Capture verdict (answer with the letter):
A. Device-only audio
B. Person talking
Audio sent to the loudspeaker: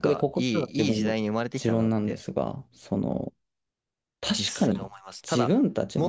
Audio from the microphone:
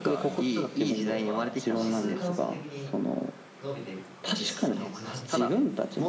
B